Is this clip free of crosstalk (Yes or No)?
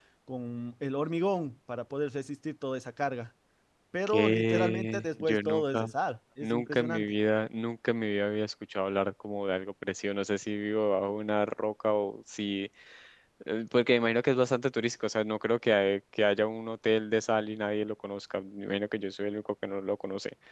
No